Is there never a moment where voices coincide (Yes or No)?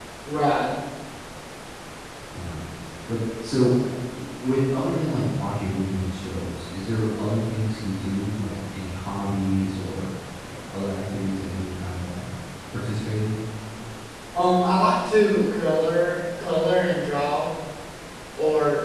Yes